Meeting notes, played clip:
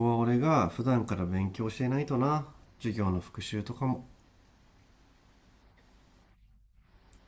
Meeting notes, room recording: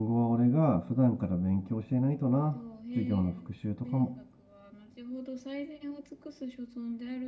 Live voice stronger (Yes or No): No